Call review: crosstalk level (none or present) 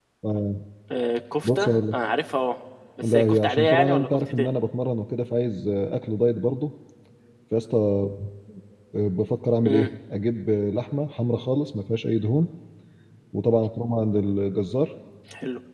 present